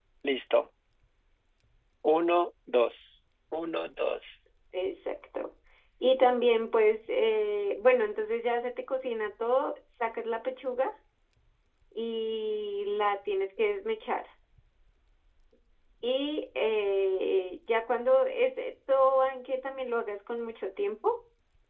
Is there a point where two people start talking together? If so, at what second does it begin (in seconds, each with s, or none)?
none